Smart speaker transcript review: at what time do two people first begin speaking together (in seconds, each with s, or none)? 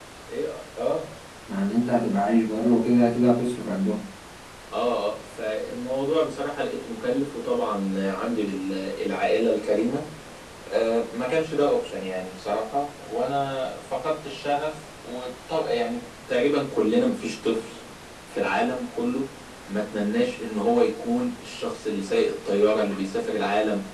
none